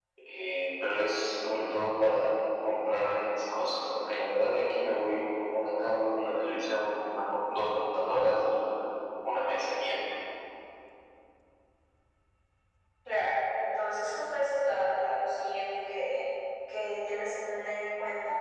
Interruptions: none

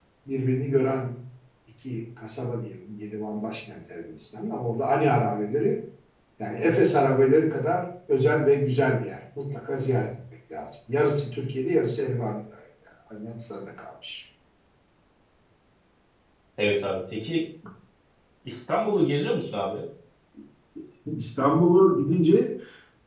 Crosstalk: none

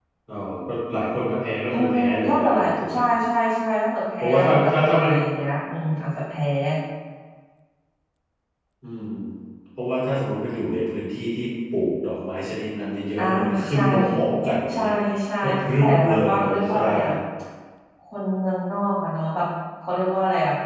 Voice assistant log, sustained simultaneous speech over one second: present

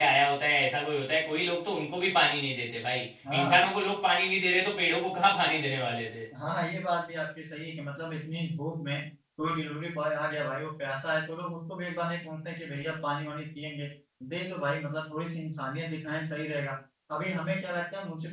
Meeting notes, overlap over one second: none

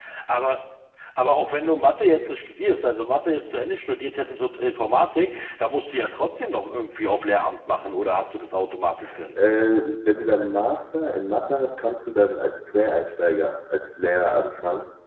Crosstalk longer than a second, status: none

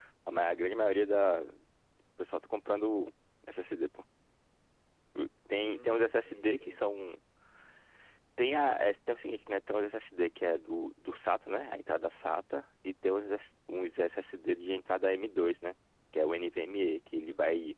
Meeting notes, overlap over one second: present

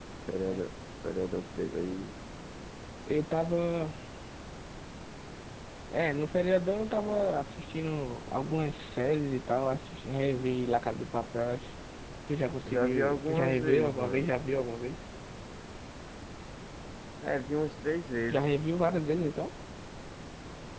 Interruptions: present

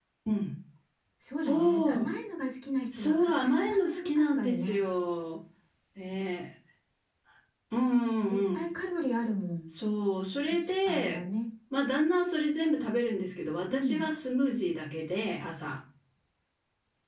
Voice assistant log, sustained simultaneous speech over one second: present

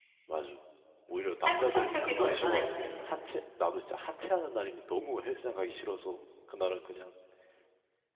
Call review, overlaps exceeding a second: present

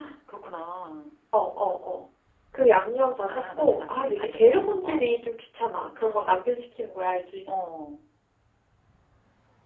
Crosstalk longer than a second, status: present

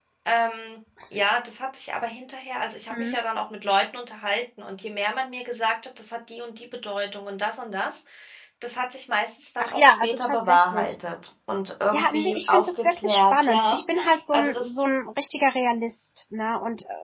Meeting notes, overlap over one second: present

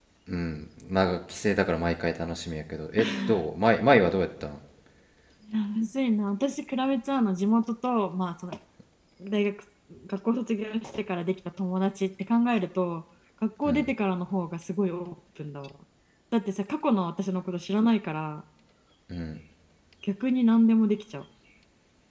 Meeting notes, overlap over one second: none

